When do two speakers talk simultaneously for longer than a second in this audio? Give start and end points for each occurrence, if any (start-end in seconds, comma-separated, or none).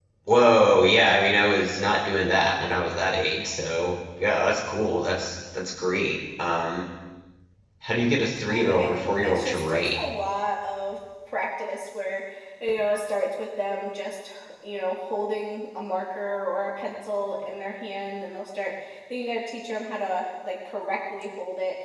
8.5-10.0